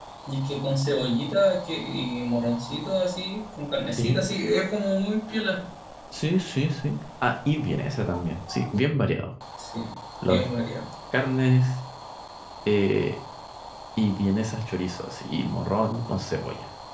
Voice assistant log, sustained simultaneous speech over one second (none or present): none